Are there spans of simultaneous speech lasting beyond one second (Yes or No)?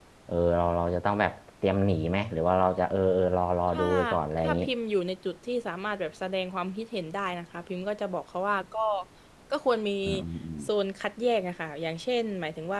No